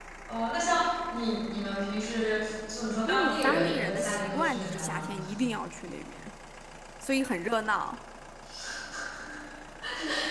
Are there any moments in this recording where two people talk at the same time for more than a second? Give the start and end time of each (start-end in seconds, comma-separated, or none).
3.1-5.1